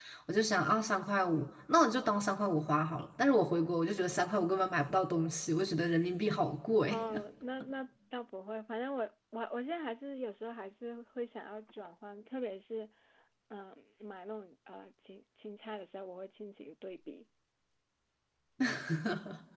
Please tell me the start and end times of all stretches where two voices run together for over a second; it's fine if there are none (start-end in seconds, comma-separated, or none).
none